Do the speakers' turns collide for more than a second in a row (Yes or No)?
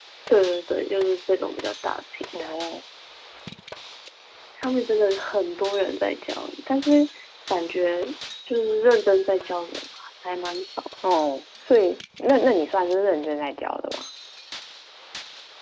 No